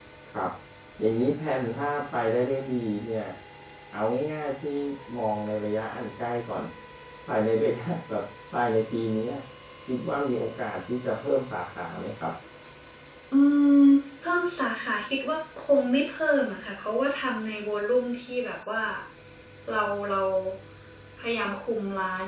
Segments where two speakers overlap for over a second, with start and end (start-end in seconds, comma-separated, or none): none